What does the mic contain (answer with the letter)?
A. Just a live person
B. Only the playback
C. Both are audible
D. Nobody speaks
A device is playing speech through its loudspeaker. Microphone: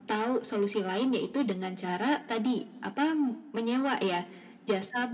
B